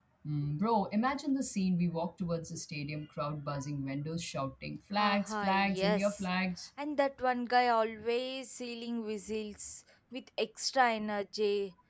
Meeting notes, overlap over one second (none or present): present